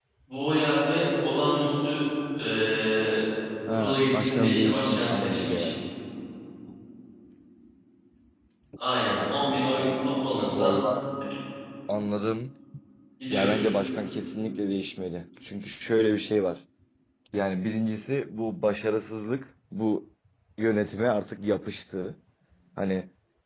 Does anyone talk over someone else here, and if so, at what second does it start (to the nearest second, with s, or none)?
4 s